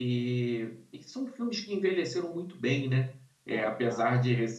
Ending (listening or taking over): listening